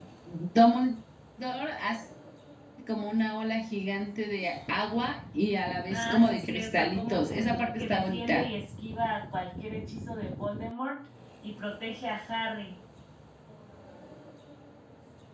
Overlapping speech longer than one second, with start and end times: 5.9-8.5

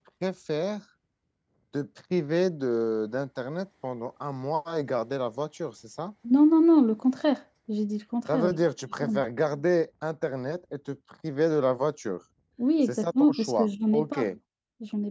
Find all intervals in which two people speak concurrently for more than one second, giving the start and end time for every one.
12.8-14.2

